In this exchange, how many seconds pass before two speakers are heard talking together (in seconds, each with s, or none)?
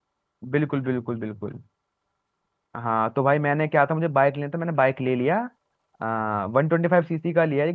none